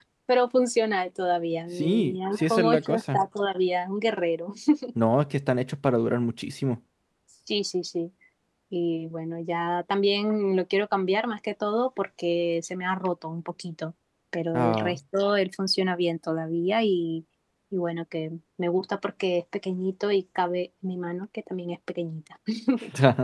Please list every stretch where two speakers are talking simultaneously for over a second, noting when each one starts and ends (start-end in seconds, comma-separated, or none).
1.8-3.2